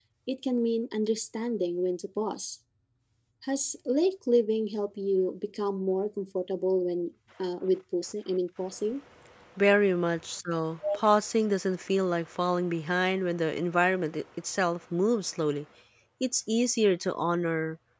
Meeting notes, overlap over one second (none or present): none